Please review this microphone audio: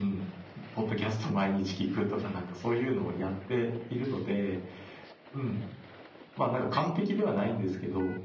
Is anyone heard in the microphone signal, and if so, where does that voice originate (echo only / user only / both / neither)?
both